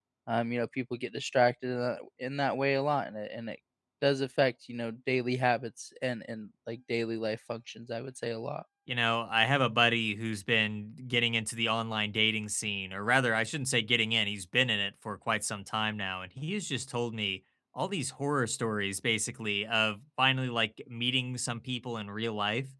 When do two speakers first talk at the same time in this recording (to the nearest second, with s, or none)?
none